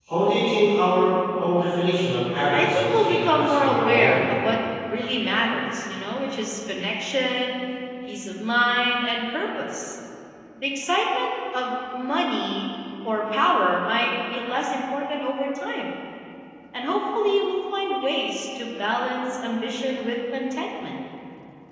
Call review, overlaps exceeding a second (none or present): present